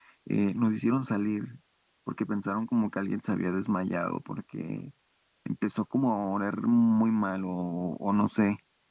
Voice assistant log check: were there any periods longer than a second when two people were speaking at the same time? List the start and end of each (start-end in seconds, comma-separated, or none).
none